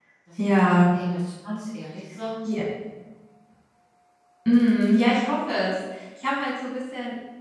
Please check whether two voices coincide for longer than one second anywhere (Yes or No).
No